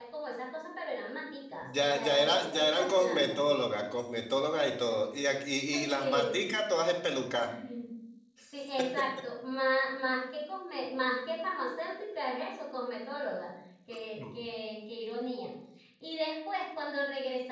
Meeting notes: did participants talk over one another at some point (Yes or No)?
Yes